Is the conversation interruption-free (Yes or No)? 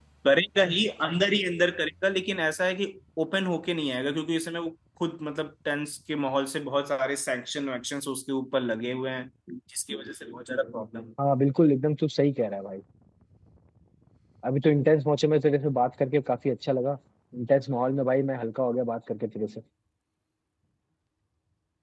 Yes